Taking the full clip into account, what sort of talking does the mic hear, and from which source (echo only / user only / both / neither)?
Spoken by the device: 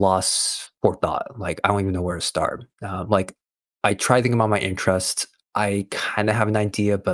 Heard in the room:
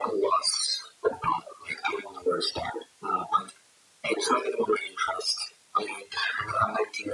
echo only